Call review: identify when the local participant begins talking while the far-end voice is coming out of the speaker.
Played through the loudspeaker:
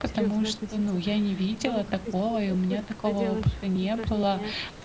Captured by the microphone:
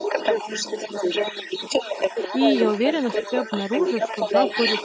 2.3 s

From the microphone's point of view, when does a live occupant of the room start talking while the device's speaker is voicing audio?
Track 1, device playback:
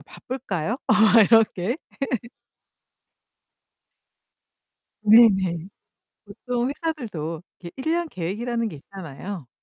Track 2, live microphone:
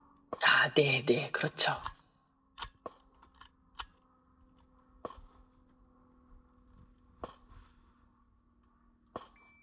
0.4 s

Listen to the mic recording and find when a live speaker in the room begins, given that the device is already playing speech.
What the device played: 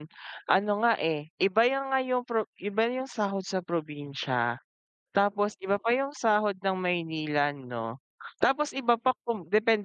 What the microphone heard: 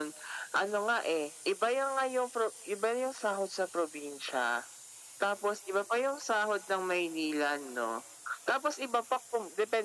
none

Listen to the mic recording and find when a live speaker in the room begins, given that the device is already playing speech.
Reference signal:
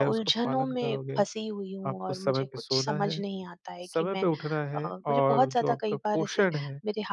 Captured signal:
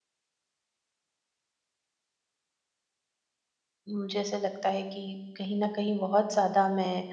3.9 s

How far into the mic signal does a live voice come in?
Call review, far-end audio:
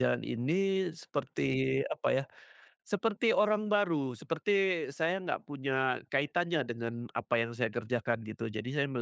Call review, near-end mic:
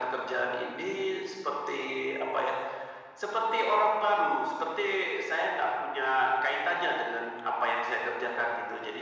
none

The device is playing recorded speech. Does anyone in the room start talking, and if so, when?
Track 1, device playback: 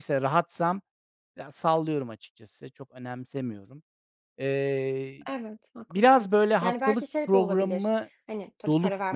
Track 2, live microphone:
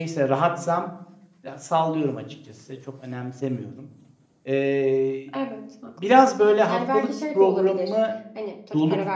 none

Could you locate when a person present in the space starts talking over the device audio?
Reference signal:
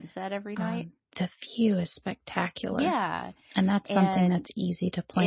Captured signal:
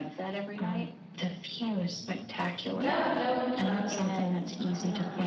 2.8 s

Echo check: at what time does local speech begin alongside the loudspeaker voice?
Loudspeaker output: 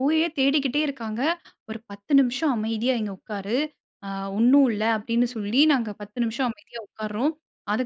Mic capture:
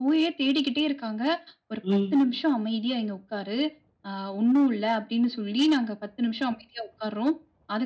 1.8 s

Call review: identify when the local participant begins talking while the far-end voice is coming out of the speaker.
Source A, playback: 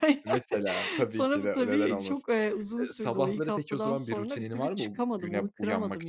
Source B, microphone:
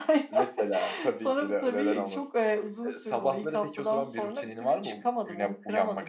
none

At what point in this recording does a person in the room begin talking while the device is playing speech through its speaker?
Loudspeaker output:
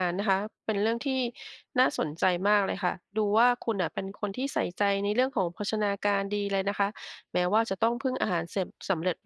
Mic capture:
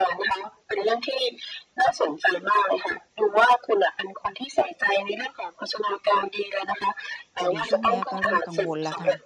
7.4 s

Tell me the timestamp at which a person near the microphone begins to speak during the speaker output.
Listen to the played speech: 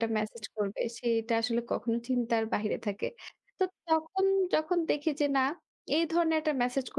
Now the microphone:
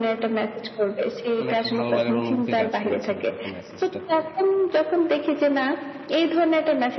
1.4 s

